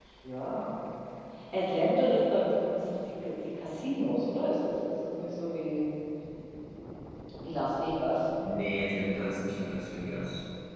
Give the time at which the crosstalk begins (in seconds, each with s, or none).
none